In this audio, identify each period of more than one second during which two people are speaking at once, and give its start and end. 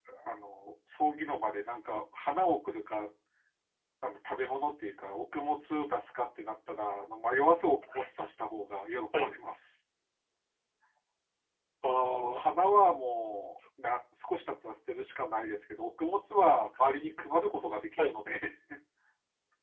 none

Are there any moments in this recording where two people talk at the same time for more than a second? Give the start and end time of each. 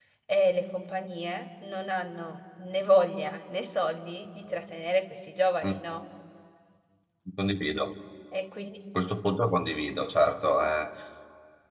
none

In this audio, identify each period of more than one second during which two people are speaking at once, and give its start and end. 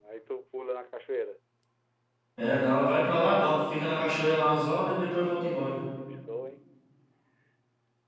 none

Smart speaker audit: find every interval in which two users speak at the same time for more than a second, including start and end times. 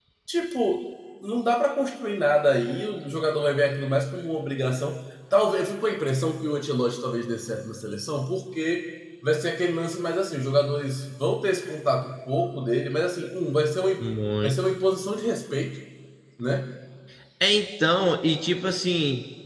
none

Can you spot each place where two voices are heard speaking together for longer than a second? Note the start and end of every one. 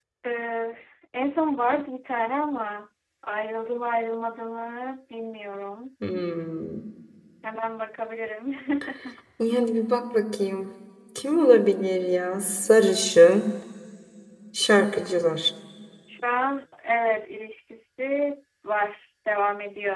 none

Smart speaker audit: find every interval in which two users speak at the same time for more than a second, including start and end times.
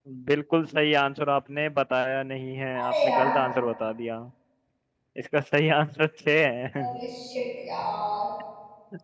none

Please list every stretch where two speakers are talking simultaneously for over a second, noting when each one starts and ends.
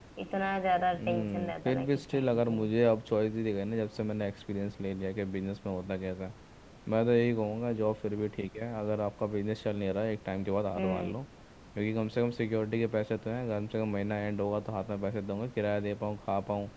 1.0-2.7

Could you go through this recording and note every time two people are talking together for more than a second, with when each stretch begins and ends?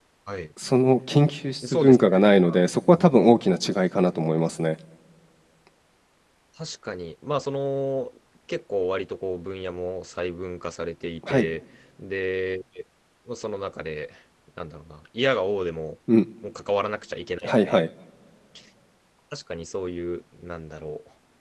none

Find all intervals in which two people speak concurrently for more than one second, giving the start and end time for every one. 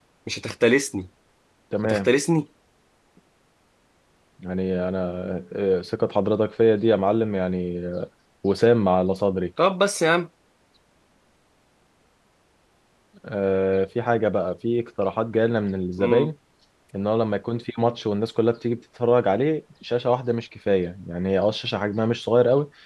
none

